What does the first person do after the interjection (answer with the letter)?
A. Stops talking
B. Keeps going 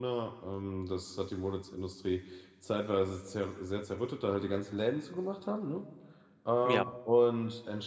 B